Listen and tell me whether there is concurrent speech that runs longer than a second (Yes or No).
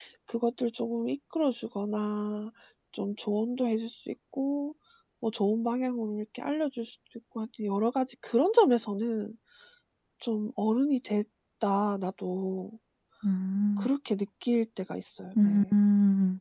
No